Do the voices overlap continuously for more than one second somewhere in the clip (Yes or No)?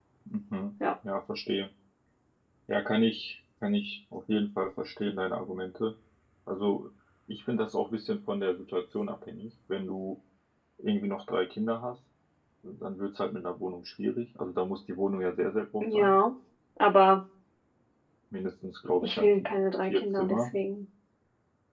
Yes